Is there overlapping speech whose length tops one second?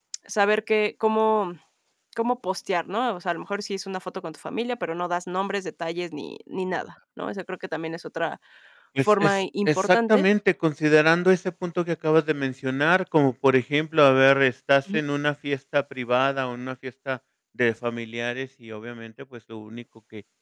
Yes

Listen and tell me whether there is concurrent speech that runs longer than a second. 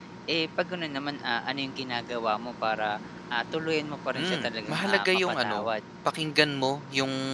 Yes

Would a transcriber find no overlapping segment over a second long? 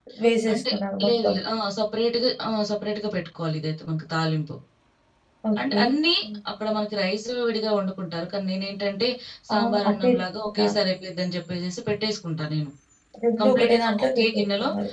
No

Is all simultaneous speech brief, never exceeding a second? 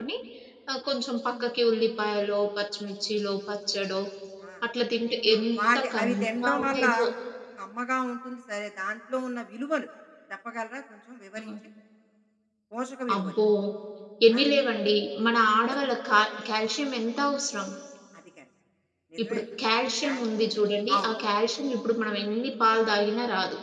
No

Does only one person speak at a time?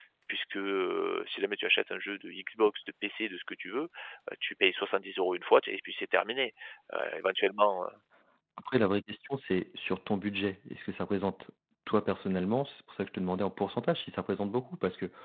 Yes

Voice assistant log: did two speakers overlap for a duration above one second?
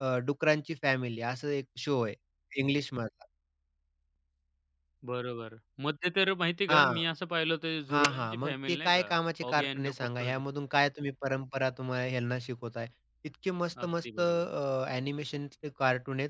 Yes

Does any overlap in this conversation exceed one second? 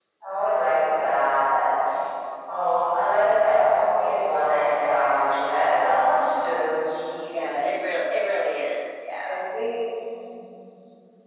No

